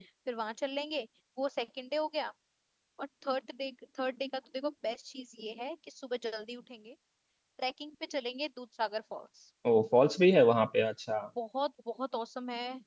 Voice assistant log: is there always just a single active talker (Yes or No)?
Yes